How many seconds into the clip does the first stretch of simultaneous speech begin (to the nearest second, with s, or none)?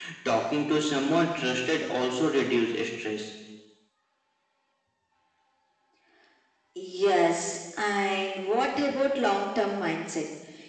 none